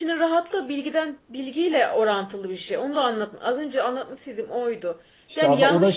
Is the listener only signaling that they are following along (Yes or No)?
No